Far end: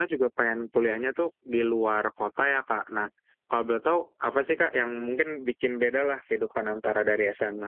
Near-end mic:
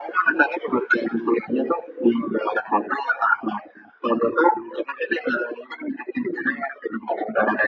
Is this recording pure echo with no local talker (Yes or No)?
Yes